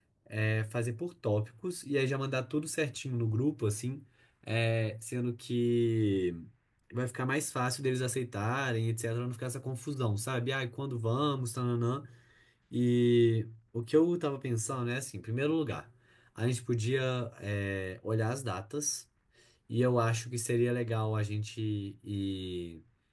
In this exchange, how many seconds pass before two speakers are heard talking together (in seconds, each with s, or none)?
none